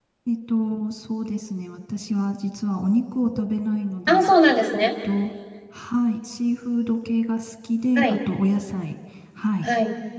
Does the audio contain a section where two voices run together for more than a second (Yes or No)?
No